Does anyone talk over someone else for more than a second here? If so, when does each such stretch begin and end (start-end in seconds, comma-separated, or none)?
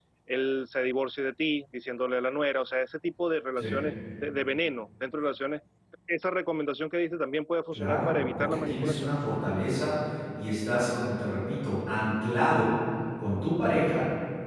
7.7-9.1